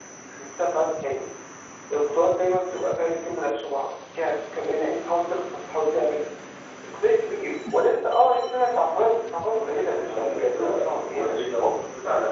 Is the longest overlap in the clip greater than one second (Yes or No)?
Yes